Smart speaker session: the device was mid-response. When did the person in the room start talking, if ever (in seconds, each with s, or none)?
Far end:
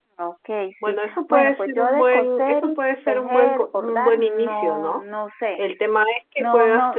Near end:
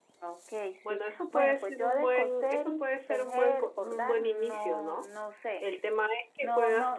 none